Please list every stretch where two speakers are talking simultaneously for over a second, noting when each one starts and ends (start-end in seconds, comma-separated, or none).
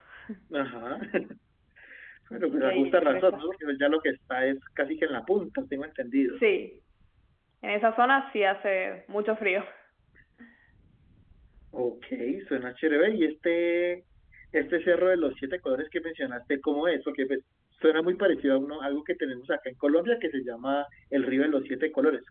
2.3-3.6